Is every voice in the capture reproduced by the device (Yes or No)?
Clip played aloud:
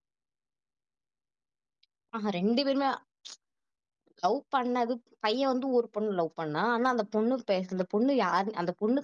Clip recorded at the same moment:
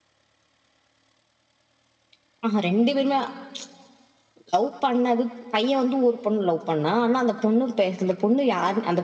Yes